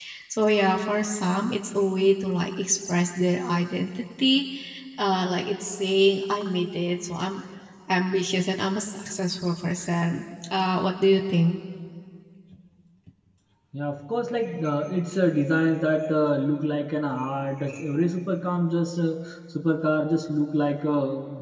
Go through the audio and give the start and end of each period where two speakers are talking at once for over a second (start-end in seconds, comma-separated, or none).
none